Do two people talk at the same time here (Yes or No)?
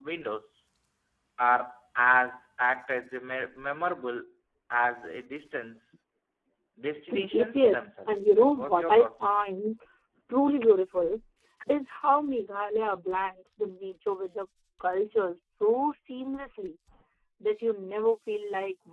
Yes